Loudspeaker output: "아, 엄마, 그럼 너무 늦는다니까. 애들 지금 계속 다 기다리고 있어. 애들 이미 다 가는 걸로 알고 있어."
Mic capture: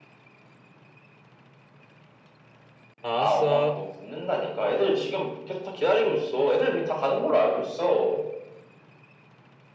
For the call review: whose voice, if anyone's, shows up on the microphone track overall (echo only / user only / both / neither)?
both